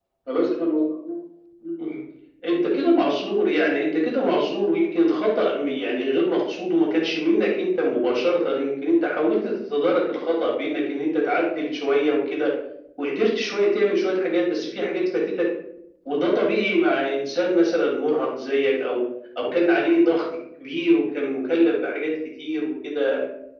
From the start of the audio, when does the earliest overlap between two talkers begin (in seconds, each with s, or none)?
none